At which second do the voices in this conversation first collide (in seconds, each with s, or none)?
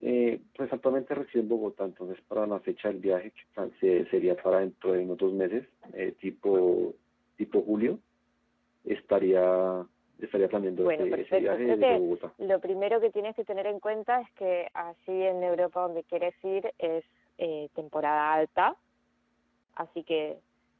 10.8 s